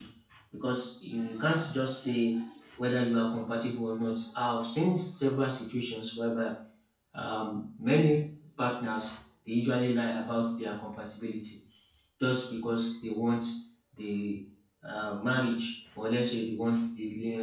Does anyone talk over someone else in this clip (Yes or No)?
No